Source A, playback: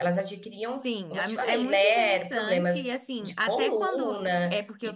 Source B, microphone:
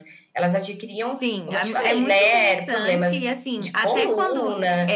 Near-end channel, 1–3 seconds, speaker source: echo only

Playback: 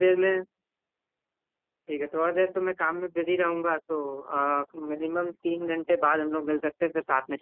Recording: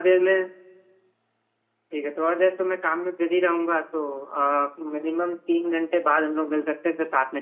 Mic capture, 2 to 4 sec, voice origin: echo only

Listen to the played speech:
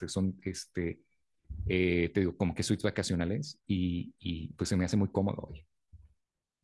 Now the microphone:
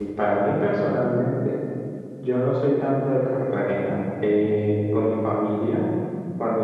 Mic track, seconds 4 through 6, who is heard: user only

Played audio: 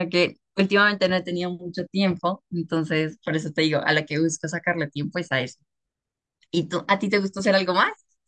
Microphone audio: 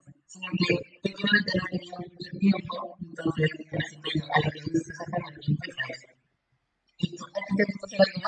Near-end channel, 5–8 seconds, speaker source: echo only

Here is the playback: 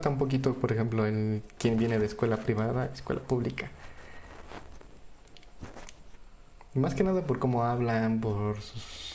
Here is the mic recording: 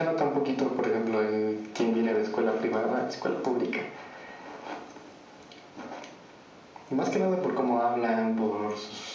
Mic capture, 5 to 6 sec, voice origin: neither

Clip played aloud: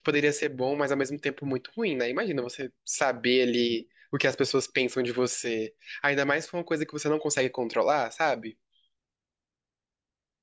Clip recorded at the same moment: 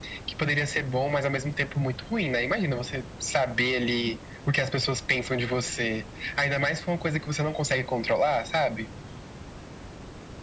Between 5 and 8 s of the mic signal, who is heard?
echo only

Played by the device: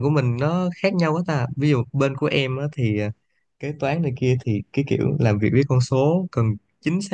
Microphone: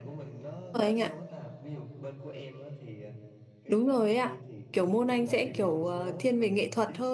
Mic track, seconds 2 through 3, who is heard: echo only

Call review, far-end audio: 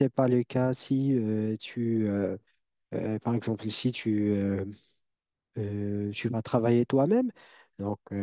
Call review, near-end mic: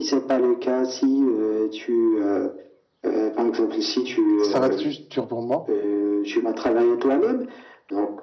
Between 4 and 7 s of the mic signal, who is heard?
both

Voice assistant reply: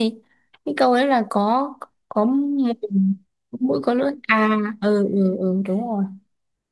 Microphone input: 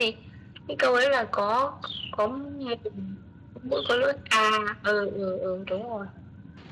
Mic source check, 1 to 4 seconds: echo only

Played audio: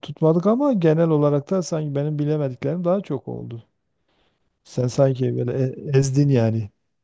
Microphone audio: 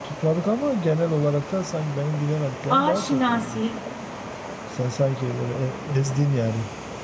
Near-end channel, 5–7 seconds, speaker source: echo only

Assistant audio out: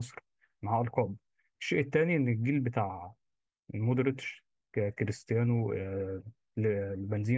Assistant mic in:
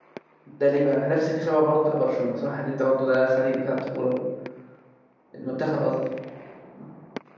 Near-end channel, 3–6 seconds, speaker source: user only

